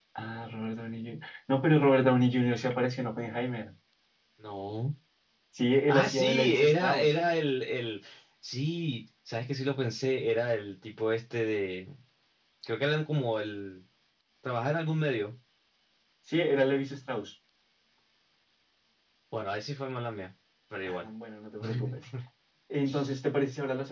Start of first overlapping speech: 5.9 s

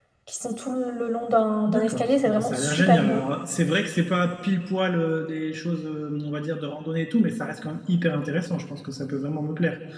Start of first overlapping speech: 1.7 s

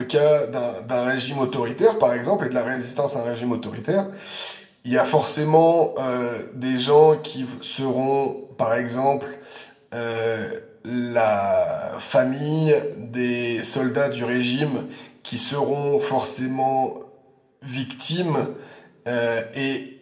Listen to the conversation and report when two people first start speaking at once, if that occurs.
none

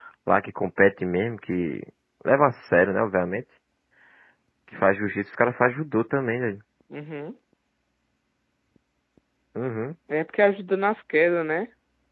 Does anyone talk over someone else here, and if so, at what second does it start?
none

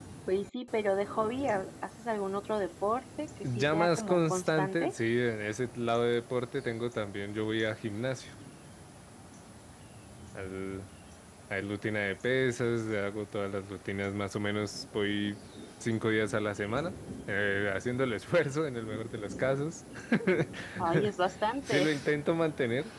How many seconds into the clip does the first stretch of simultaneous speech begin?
3.5 s

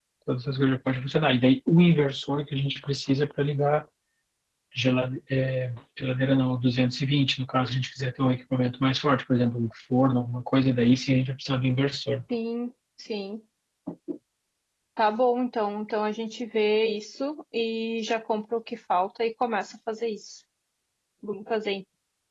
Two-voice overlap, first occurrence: none

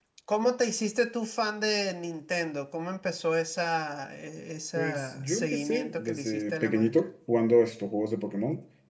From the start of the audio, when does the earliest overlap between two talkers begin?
4.8 s

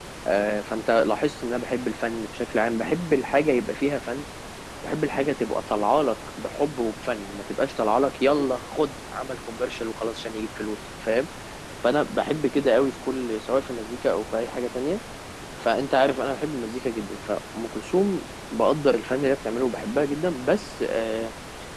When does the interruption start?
none

